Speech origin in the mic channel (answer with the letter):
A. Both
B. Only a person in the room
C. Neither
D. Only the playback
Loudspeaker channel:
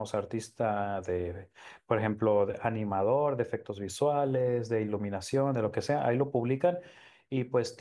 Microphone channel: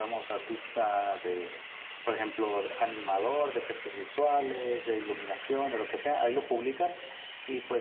D